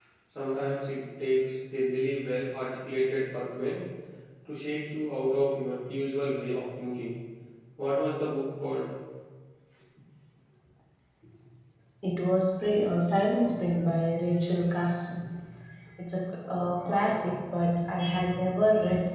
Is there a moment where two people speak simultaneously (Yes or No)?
No